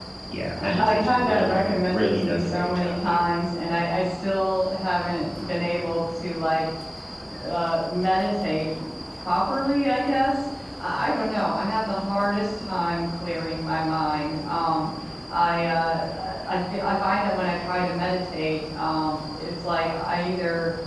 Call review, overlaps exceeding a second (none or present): present